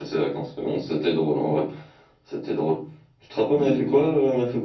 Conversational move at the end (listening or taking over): listening